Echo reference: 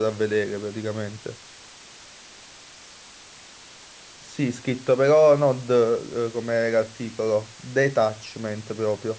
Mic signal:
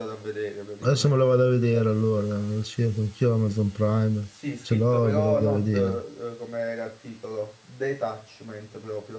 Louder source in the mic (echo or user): user